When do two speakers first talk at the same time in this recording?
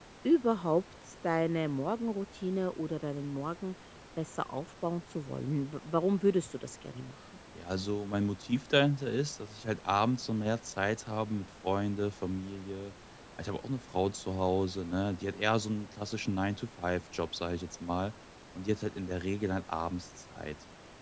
none

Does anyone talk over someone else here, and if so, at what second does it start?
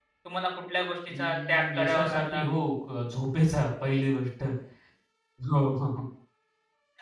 1.2 s

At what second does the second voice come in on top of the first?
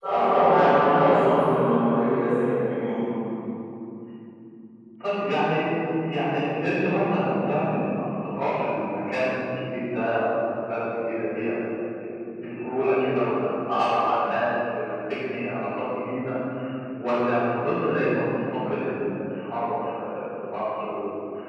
none

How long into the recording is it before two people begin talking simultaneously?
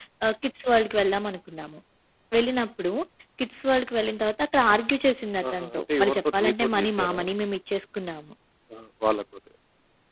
5.4 s

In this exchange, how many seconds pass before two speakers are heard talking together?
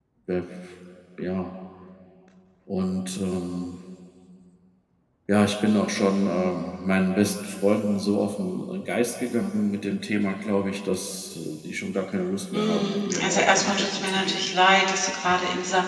12.5 s

